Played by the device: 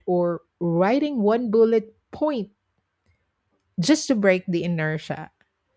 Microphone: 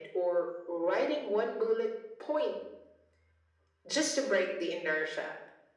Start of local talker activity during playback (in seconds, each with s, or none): none